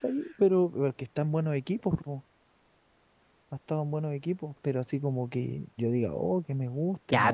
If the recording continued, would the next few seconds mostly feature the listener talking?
Yes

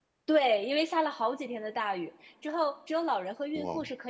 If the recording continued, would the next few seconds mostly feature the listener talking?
No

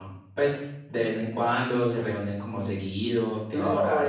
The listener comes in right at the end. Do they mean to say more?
Yes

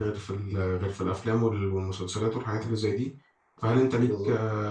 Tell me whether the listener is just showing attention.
Yes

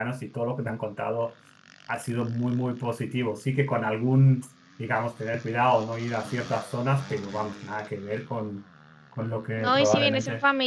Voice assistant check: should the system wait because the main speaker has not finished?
No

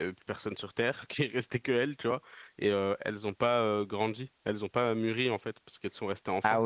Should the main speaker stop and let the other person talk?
Yes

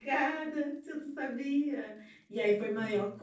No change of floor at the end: Yes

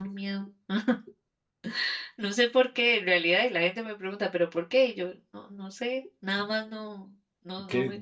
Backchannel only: No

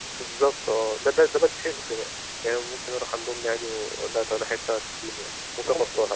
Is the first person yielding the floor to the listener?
Yes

